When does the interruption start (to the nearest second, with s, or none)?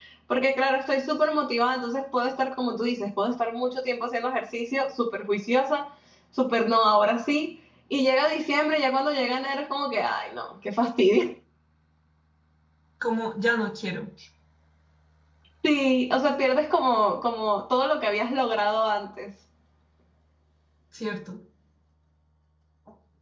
none